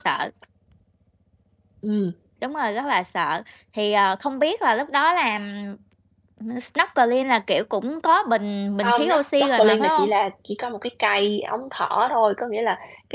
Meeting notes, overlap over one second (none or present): present